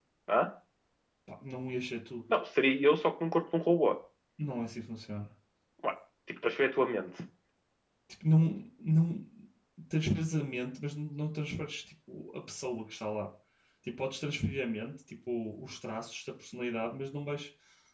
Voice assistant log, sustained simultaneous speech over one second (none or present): none